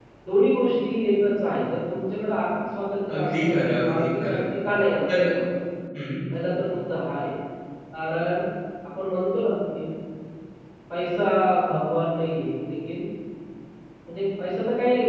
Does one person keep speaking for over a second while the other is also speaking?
Yes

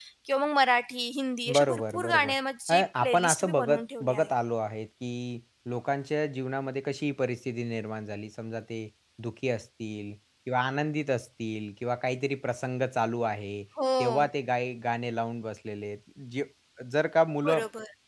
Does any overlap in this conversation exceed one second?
Yes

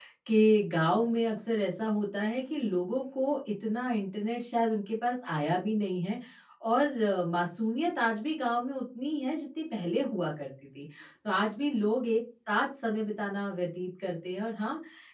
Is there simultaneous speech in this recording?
No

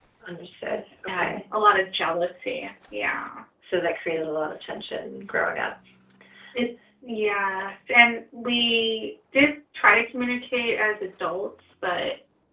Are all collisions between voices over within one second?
Yes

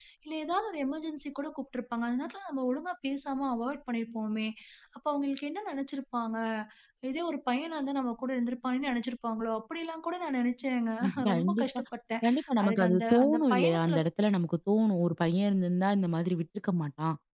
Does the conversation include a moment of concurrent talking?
Yes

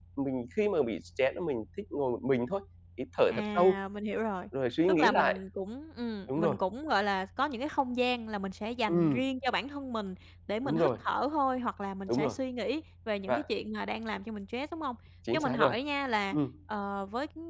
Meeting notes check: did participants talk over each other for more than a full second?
No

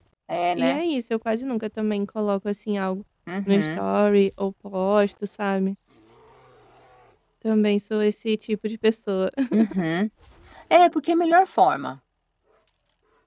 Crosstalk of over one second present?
No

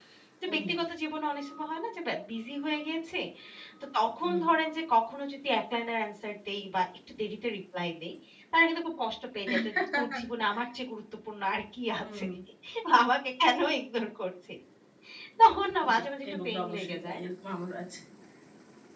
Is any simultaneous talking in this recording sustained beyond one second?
Yes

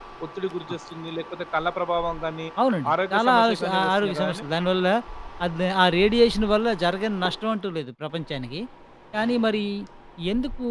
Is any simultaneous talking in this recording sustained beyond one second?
Yes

